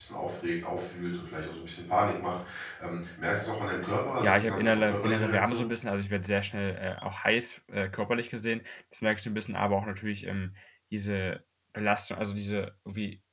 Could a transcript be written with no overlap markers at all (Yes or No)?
No